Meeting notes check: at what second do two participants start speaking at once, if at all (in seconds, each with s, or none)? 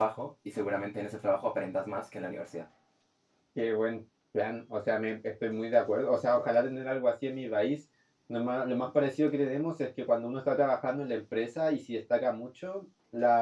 none